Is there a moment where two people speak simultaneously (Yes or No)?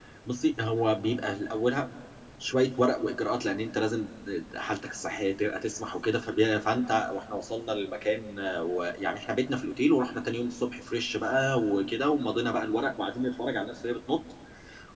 No